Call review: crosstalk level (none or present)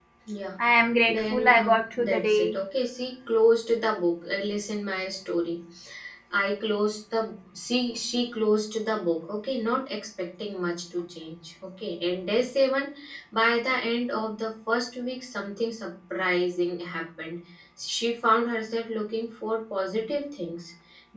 present